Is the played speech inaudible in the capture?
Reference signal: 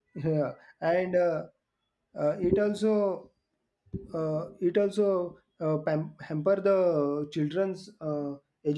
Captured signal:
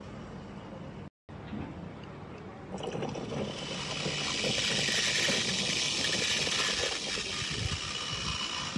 Yes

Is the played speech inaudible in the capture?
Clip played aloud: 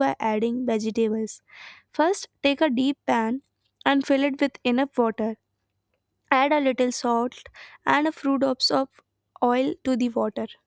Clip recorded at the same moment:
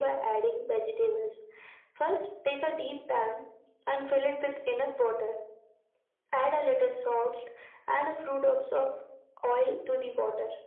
No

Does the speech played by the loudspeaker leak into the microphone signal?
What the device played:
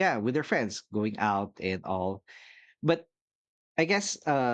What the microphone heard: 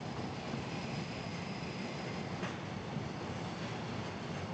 No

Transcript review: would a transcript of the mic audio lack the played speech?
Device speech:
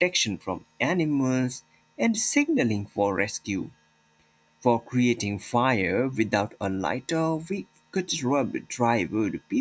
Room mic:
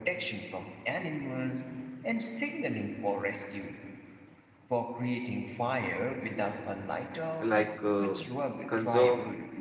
No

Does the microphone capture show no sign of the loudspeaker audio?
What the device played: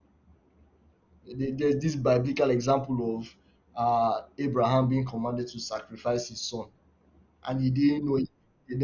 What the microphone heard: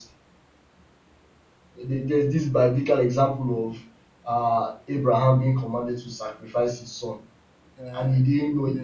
No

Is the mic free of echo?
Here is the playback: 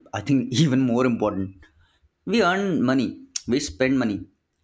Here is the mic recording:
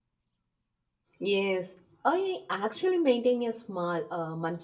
Yes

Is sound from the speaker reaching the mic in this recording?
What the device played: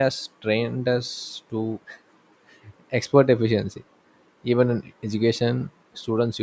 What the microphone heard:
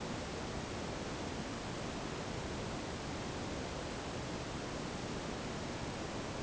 No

